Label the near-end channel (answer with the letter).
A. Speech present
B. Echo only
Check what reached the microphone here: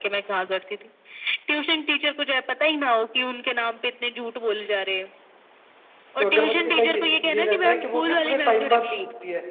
A